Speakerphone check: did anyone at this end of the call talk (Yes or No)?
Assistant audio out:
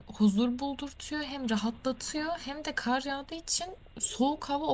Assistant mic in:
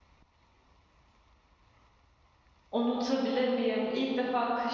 Yes